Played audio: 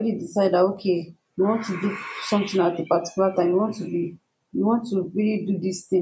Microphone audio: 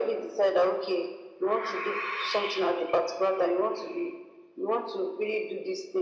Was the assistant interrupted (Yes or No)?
No